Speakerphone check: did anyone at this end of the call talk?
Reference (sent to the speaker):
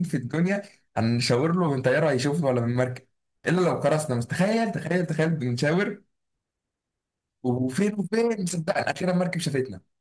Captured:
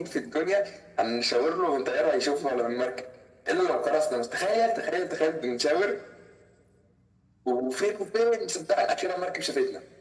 No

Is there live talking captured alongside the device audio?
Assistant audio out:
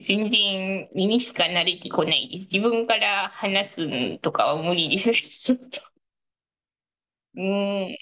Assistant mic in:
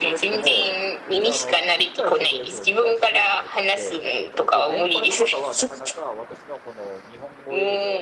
Yes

